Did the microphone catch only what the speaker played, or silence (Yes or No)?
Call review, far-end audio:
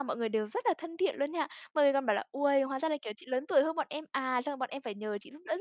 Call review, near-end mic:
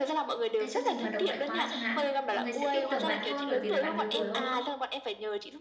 No